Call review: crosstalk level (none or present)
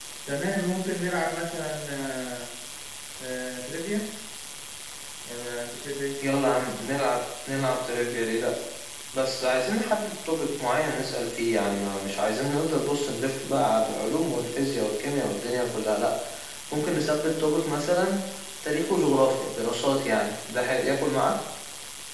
none